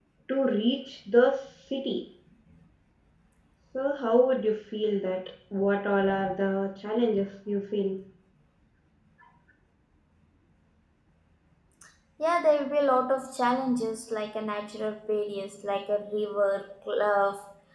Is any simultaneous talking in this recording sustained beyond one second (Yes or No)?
No